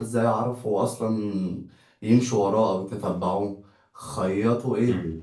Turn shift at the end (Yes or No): No